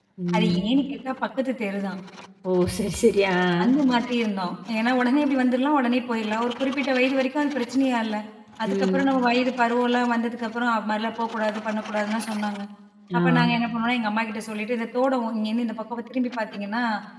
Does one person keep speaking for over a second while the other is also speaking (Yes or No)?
No